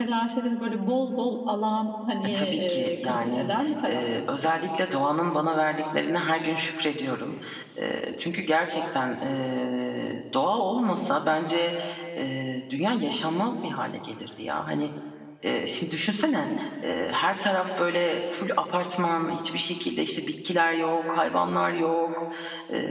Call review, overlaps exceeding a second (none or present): present